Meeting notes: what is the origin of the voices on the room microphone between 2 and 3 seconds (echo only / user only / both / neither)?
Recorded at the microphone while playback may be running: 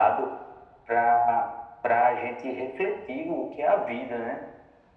echo only